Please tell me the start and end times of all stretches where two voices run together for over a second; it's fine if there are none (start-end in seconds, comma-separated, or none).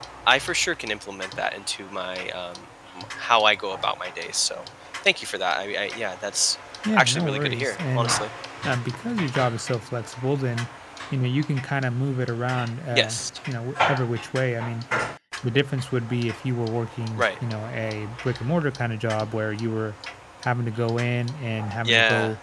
7.0-8.2